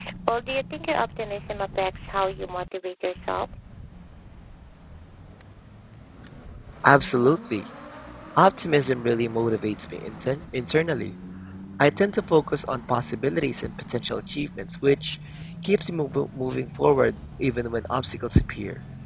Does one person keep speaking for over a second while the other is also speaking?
No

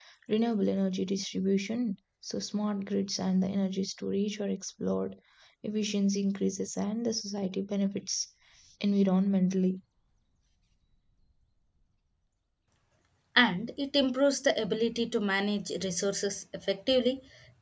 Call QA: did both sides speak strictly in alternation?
Yes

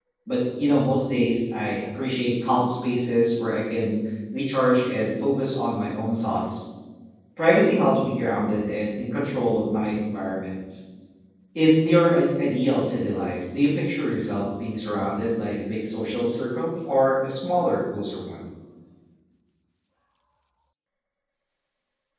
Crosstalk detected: No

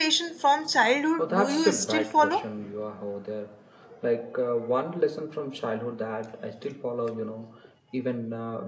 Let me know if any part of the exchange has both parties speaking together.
Yes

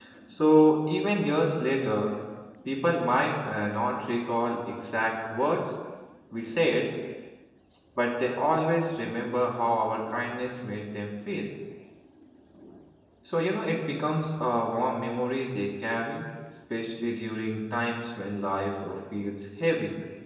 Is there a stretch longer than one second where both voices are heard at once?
No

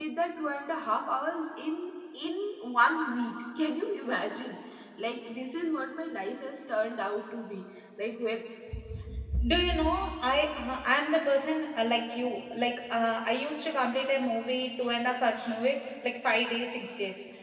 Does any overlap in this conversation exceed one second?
No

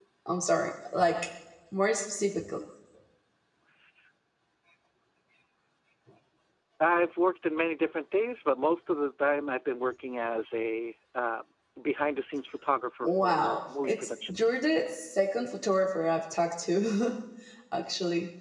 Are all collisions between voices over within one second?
No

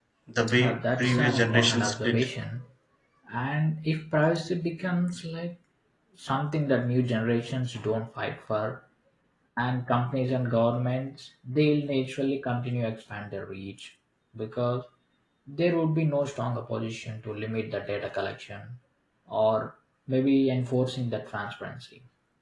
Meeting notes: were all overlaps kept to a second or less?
No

